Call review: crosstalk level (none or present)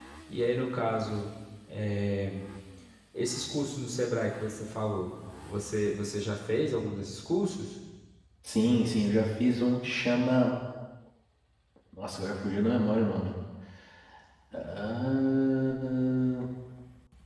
none